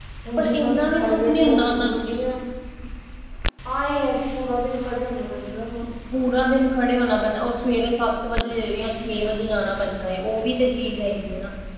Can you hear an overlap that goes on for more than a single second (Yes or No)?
Yes